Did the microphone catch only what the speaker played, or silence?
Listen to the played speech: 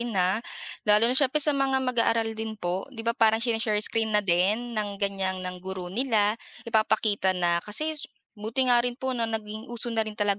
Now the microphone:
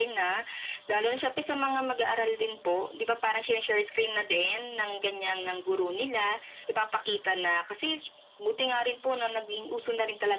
Yes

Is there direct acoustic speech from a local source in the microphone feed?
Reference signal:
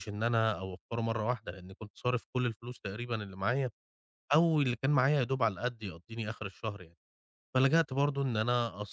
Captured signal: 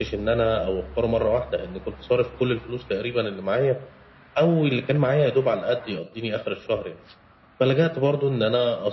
No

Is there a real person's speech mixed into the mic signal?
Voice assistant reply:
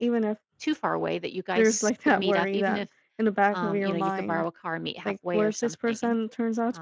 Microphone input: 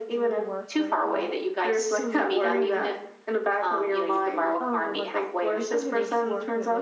Yes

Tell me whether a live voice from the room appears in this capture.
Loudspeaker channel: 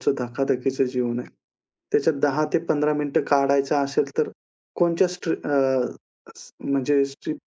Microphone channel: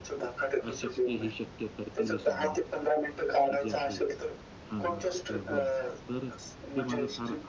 Yes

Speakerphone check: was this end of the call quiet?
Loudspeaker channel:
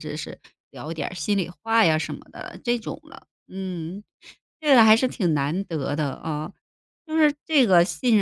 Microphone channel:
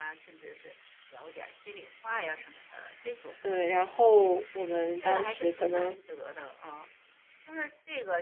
No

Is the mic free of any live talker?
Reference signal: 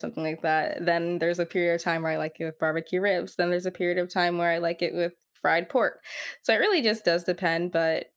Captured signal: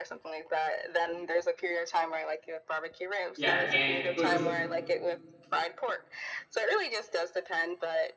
No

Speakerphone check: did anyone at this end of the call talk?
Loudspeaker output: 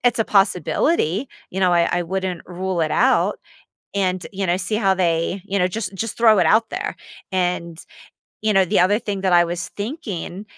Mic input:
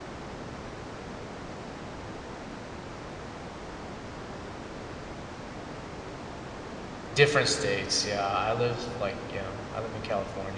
Yes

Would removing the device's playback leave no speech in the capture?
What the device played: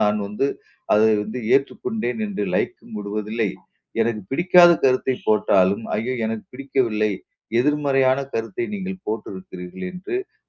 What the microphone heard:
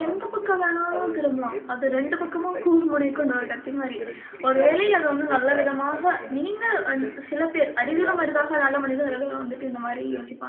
No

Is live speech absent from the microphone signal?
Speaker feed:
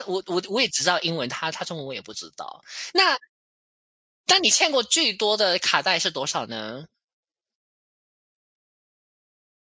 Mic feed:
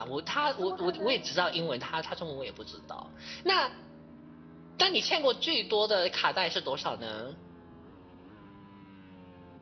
No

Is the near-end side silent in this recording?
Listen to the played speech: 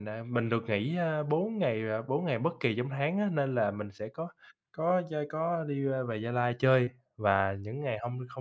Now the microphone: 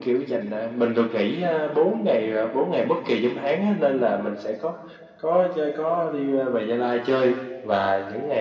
Yes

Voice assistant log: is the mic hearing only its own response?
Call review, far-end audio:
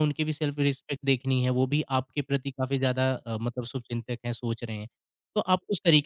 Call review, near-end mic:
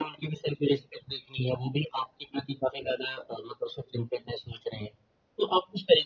Yes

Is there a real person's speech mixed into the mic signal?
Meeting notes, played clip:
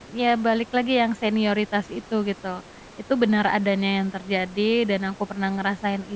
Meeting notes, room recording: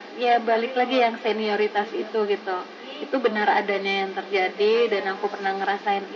Yes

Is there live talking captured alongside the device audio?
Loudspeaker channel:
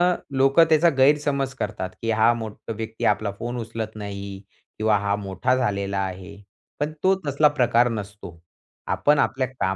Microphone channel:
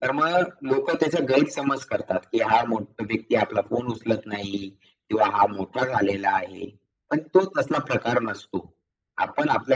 No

